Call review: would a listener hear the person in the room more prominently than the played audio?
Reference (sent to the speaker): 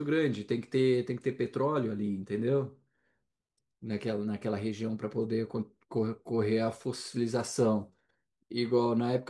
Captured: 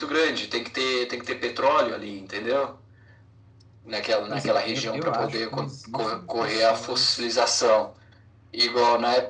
No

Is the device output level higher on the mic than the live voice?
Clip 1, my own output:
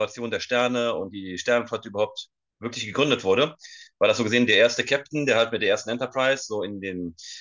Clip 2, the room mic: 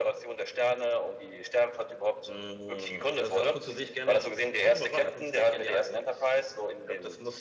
Yes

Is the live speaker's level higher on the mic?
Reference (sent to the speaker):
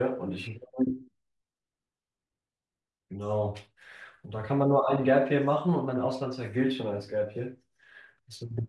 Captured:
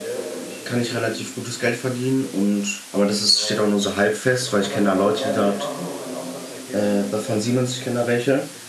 Yes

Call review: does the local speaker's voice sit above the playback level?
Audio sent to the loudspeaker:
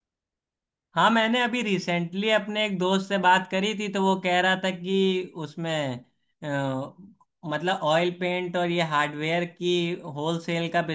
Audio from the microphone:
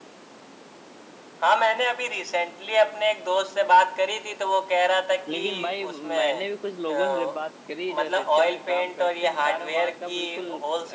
No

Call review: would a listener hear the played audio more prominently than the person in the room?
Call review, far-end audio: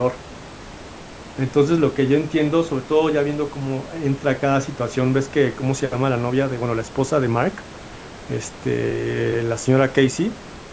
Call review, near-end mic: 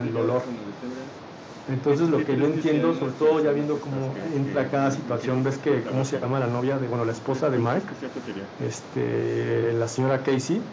Yes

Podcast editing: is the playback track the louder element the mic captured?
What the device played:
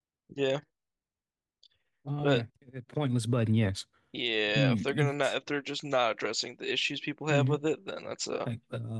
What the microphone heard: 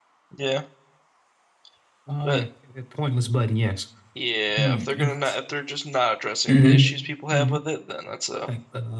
No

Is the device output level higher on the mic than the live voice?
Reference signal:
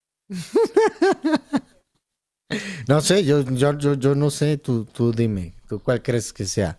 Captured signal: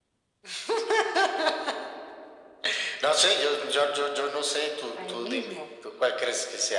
Yes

